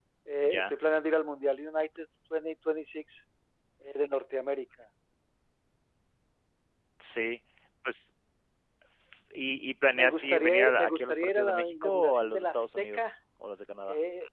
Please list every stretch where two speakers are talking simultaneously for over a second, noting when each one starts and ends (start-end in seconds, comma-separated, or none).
9.9-13.1